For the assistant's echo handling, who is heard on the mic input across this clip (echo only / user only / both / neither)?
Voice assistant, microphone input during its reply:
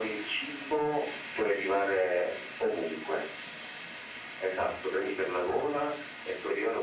echo only